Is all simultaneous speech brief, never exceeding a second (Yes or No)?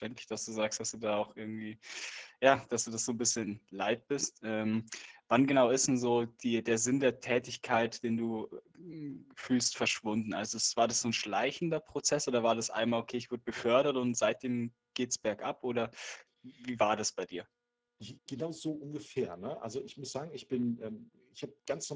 Yes